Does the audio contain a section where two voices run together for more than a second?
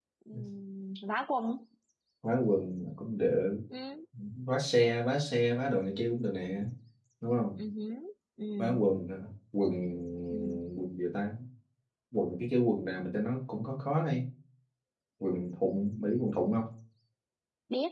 No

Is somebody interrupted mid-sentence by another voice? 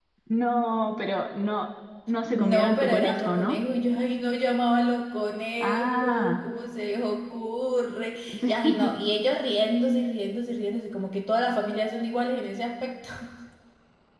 Yes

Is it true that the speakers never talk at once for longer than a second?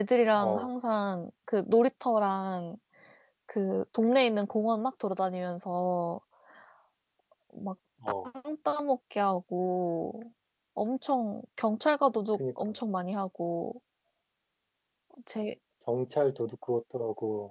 Yes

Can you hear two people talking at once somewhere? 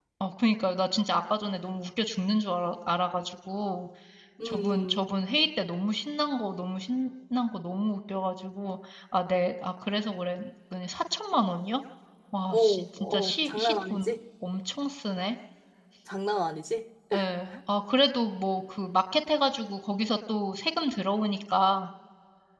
Yes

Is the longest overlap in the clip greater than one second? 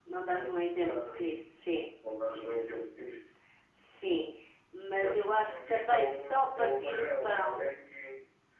Yes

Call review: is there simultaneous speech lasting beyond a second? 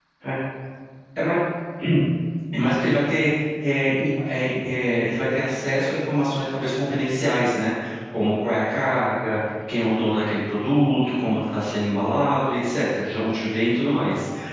No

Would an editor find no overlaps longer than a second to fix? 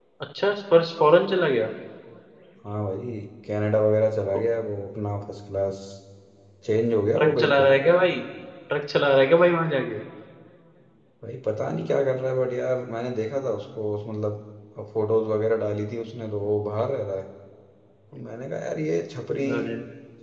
Yes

